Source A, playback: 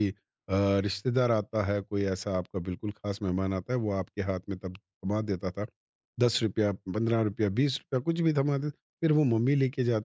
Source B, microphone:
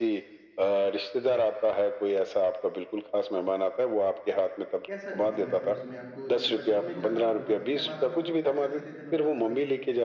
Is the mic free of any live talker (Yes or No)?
No